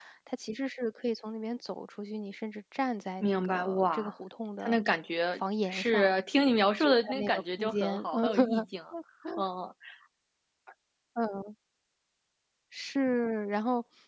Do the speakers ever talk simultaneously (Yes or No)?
Yes